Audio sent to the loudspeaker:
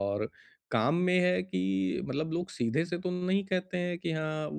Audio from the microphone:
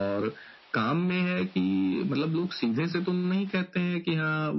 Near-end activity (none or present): none